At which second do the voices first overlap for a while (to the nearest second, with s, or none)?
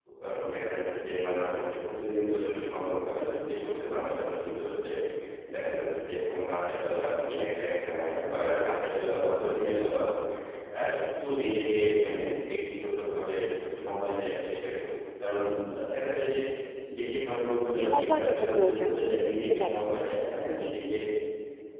18 s